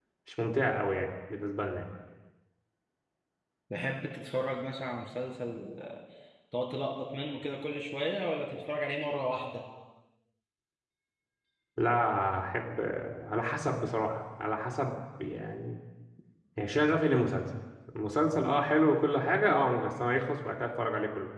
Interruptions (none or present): none